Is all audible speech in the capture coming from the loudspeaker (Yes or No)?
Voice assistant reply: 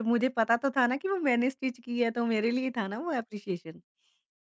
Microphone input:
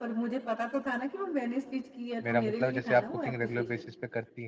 No